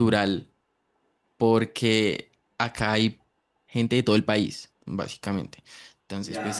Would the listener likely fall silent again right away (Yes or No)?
Yes